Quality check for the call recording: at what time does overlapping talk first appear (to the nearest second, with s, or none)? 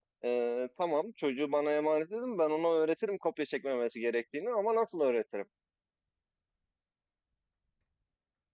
none